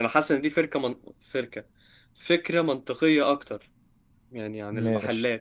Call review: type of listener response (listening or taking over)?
taking over